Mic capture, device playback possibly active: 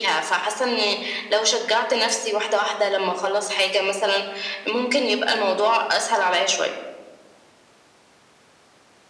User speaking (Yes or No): No